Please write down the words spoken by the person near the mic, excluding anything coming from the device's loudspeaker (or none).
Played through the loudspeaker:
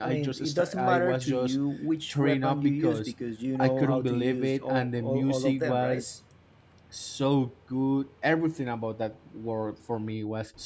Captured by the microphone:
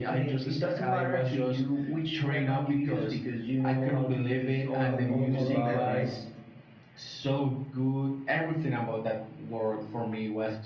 How you use the bow? I mean,